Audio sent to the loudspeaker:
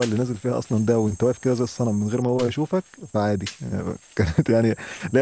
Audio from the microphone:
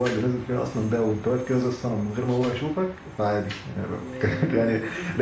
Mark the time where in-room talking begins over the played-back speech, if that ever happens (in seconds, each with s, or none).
4.0 s